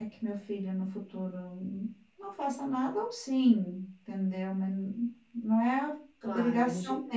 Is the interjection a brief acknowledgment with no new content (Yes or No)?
No